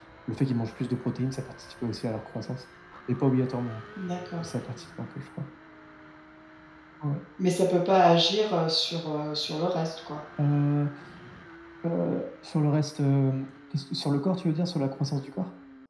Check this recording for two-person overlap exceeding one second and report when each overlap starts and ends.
none

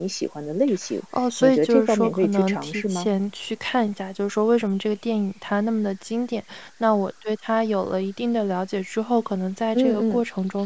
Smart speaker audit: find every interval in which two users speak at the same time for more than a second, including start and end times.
1.4-3.1

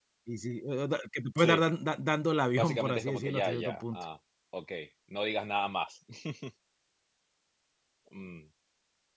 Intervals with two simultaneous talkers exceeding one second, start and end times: 2.5-4.0

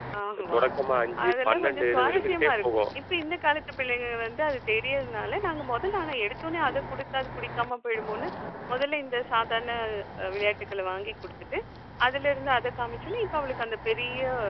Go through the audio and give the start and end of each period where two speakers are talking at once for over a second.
1.3-2.6

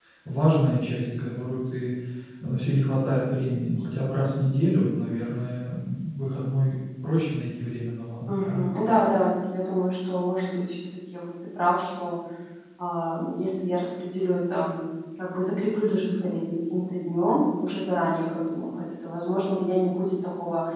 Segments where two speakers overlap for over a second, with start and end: none

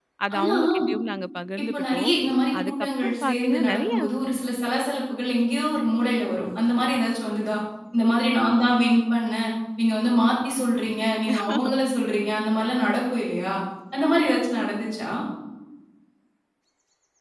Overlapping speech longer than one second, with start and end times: 2.6-3.9

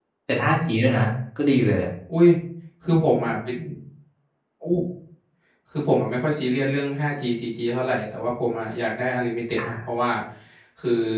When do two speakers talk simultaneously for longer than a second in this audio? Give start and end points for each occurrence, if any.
none

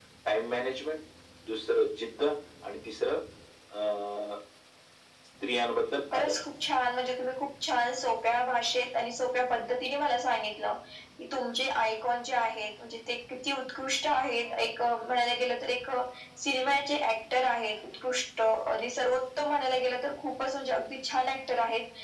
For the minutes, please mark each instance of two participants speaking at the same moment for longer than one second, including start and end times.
none

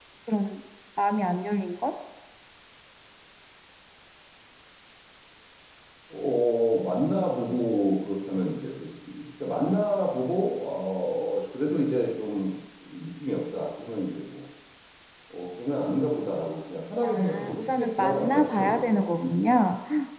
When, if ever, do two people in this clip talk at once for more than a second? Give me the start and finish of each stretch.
17.0-19.6

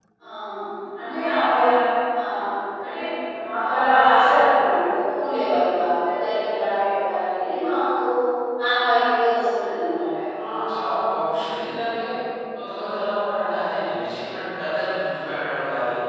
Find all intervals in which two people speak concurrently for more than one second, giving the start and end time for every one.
none

